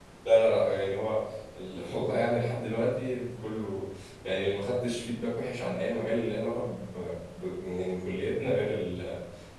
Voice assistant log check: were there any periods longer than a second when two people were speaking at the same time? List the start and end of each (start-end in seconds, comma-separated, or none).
none